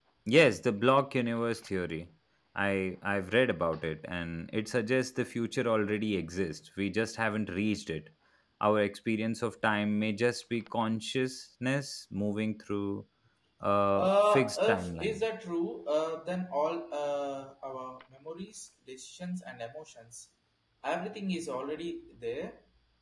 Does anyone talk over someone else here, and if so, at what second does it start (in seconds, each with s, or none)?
14.0 s